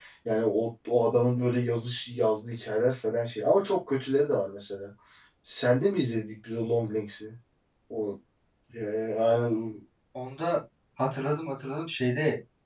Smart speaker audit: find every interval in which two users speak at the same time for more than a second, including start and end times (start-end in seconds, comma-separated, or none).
none